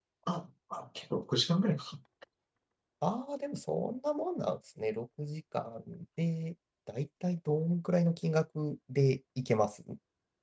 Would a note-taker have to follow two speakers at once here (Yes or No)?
No